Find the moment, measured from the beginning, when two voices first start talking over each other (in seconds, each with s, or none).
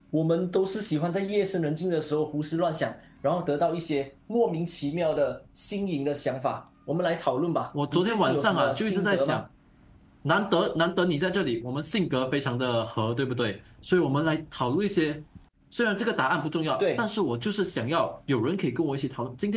7.9 s